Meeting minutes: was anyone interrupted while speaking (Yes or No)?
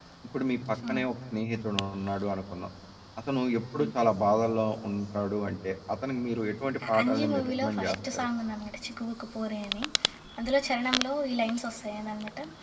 Yes